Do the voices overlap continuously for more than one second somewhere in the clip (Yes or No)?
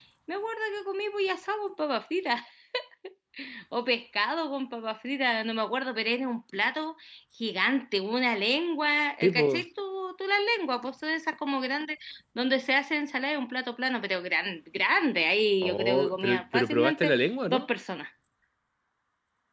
Yes